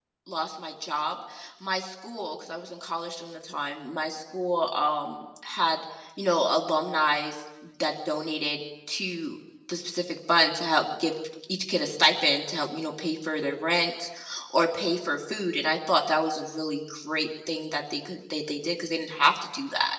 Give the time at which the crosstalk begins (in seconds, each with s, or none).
none